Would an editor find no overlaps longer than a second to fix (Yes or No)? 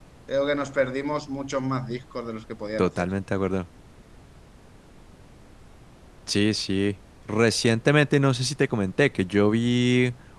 Yes